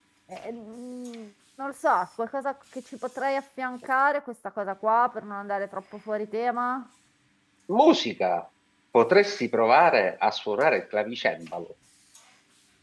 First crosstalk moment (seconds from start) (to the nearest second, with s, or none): none